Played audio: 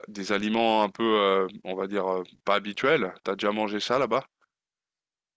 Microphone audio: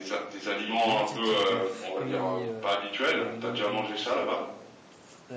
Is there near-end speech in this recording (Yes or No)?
Yes